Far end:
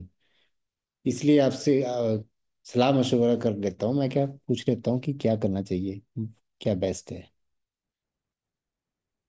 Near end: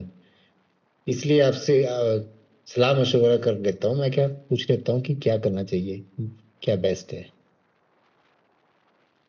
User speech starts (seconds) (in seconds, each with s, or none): none